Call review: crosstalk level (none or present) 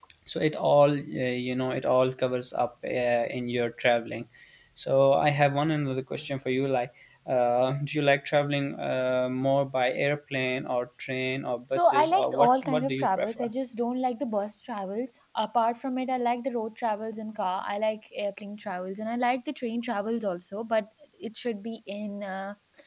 present